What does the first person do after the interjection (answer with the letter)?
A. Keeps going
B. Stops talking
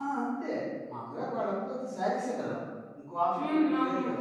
A